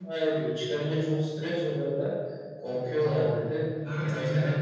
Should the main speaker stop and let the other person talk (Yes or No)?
Yes